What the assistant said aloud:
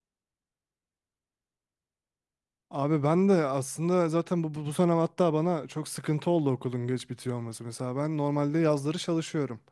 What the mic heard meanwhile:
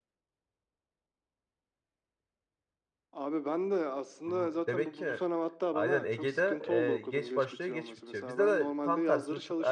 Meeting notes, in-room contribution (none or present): present